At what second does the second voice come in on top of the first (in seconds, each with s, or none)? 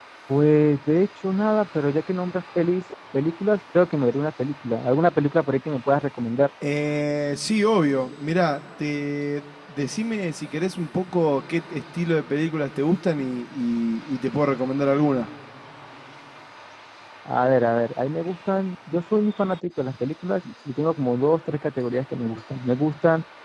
none